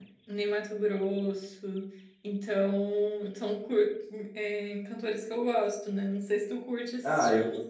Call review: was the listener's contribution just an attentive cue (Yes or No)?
No